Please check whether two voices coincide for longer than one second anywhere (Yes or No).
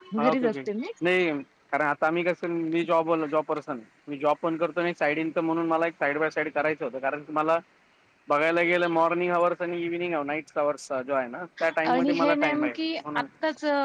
Yes